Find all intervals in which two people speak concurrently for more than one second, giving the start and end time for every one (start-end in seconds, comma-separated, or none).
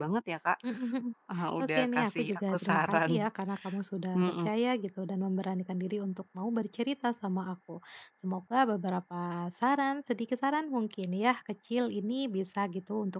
1.6-3.1